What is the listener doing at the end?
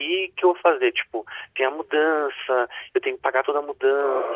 taking over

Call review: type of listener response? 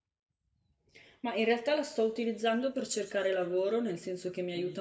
listening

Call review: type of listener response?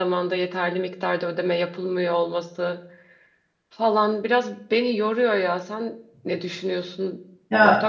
taking over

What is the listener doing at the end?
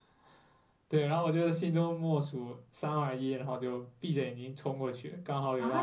taking over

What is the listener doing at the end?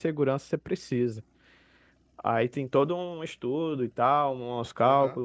taking over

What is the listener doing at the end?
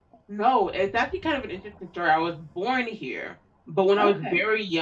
listening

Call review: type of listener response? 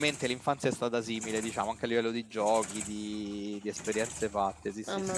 taking over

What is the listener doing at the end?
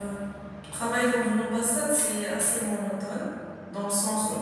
listening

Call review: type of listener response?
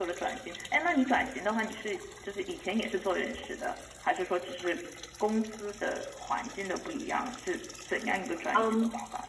taking over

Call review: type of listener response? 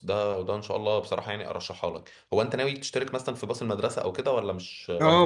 taking over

